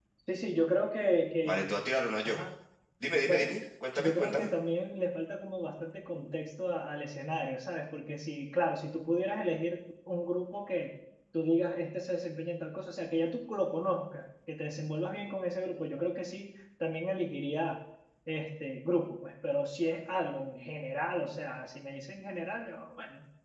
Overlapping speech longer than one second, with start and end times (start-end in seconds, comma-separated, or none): none